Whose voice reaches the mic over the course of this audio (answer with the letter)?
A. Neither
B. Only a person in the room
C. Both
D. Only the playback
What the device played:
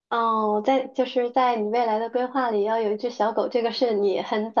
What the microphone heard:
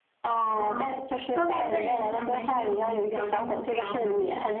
C